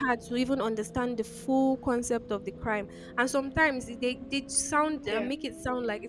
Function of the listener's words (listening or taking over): listening